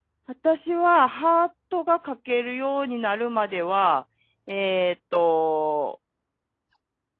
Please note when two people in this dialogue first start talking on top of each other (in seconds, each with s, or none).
none